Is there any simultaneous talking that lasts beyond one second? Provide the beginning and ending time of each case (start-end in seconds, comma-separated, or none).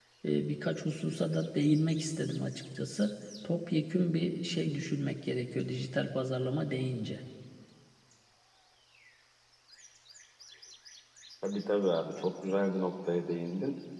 none